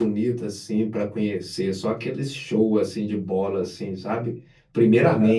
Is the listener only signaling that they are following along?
Yes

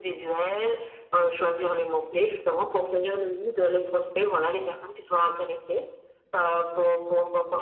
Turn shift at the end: No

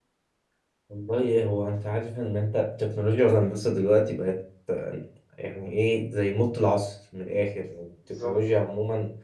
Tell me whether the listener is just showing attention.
Yes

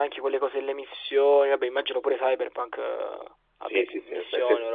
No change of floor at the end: No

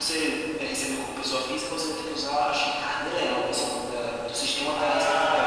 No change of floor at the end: No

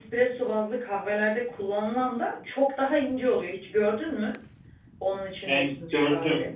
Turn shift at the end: Yes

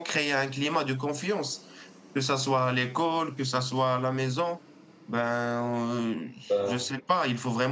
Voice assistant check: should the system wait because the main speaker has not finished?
Yes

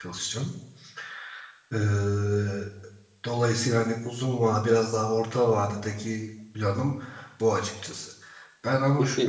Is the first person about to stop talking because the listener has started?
No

